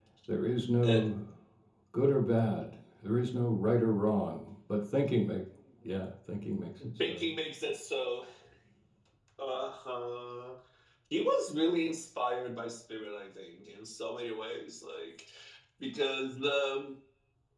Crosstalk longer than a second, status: none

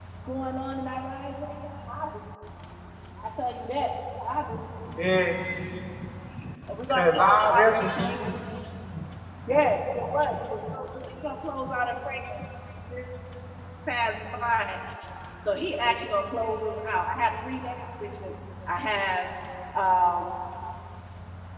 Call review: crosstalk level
present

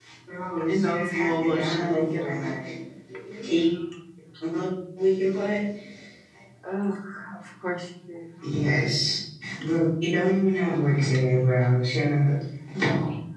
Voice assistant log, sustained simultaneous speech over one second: present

